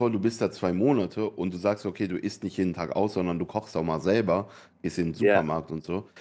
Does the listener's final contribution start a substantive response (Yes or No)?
No